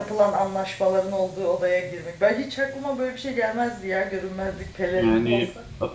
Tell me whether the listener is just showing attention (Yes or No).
No